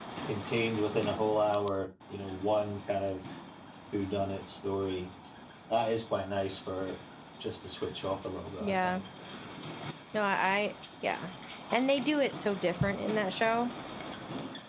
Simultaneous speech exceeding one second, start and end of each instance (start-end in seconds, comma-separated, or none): none